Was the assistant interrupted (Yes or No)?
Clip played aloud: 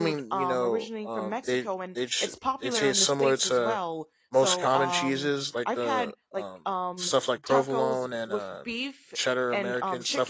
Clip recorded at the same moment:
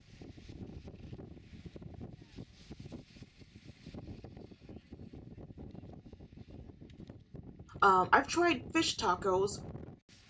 Yes